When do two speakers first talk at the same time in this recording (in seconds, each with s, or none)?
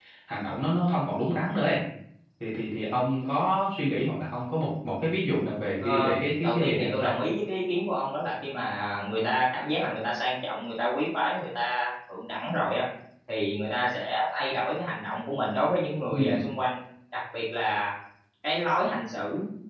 5.8 s